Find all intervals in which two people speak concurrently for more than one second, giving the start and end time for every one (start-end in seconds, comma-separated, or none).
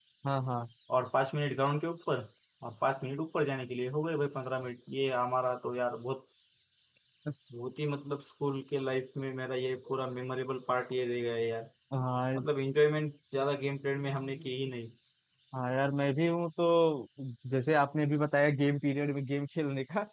none